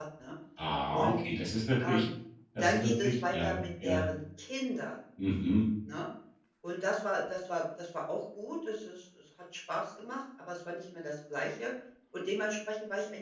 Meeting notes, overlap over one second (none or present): present